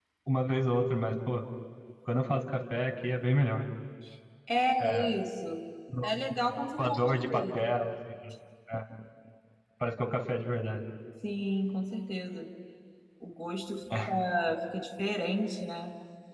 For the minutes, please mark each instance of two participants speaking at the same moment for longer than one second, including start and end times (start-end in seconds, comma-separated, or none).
6.0-7.6